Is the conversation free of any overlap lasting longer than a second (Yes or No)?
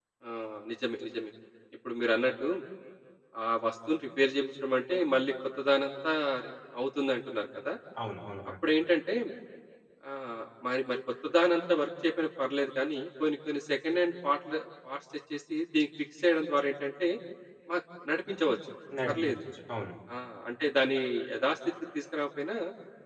Yes